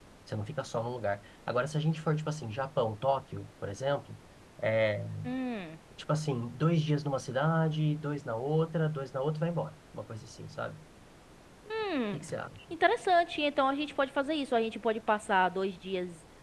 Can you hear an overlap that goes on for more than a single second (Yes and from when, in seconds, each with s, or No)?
No